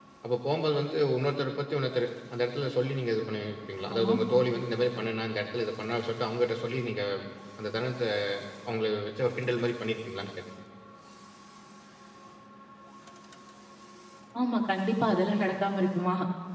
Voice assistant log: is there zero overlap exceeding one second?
Yes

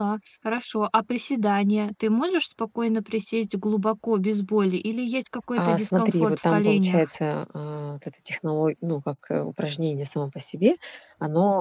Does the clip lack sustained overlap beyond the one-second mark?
No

